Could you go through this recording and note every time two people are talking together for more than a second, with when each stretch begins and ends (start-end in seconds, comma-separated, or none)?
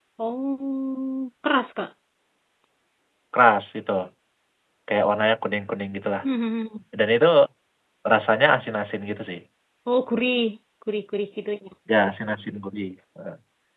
none